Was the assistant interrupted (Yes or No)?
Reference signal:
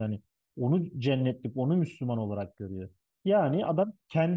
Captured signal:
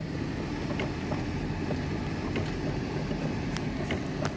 No